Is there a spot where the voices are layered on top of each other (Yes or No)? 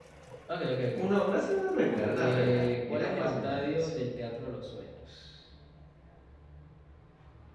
Yes